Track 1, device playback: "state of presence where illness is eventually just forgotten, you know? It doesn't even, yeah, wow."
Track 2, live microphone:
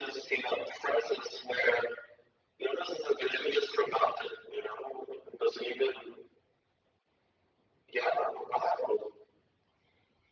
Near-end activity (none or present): none